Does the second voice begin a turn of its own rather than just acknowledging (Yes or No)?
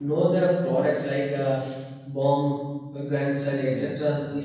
No